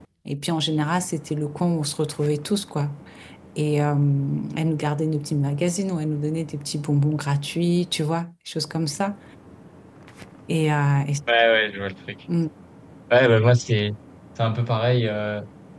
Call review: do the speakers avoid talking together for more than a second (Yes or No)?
Yes